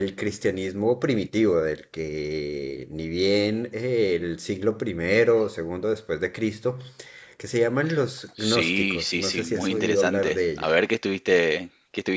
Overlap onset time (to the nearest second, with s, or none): 8 s